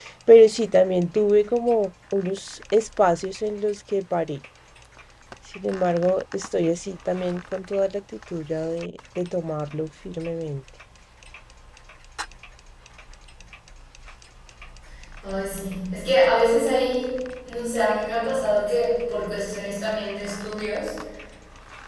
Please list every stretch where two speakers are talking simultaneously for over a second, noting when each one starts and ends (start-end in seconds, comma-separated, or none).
none